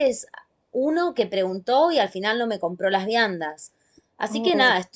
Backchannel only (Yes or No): Yes